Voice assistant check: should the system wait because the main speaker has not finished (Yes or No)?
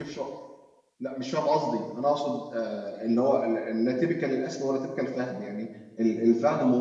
Yes